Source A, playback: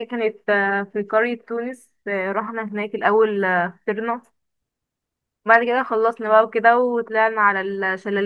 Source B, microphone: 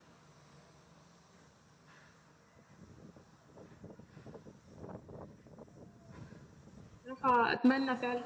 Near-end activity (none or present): present